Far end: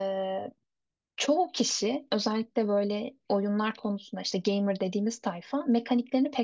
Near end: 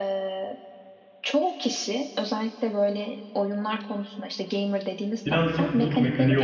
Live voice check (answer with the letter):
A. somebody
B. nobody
A